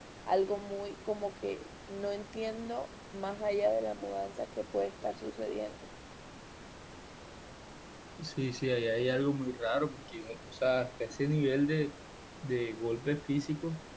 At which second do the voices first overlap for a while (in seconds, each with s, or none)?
none